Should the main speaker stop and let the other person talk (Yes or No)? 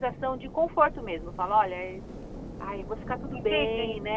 Yes